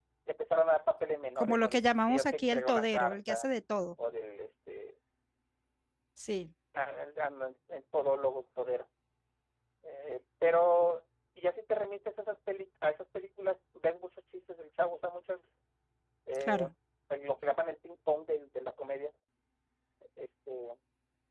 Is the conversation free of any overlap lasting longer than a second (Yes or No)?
No